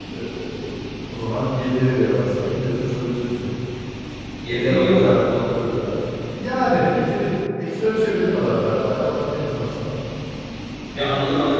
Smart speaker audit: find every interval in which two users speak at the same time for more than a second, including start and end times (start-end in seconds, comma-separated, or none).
4.5-5.8